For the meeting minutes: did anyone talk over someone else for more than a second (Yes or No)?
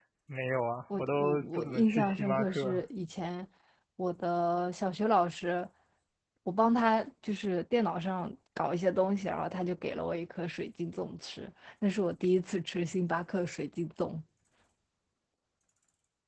Yes